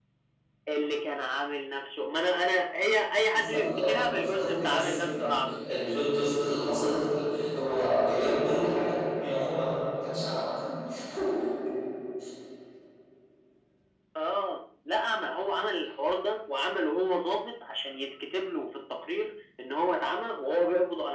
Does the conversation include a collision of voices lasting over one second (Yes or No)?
Yes